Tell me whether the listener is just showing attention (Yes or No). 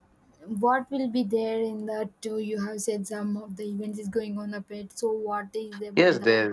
No